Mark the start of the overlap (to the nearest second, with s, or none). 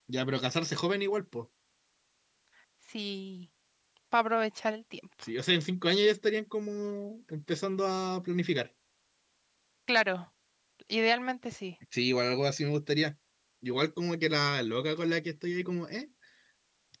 none